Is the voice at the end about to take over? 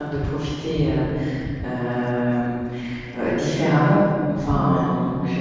No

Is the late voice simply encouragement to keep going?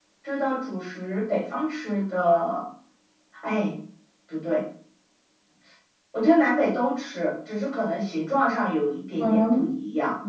No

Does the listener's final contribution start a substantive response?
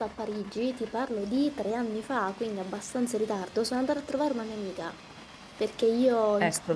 No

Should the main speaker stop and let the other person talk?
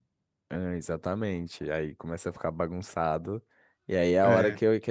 No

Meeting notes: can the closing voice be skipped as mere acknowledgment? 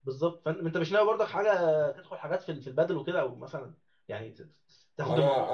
No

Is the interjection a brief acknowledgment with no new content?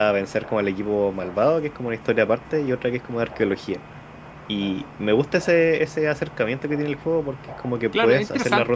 No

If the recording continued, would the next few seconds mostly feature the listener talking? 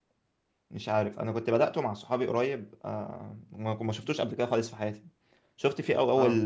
No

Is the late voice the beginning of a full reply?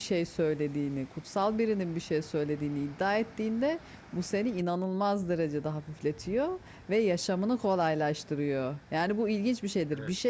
No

